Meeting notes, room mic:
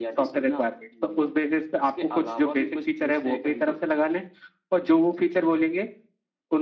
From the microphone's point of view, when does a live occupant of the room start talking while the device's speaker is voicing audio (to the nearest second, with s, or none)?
none